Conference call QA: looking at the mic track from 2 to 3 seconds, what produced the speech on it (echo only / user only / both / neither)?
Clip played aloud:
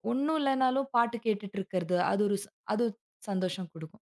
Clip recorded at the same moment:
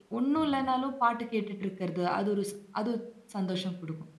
echo only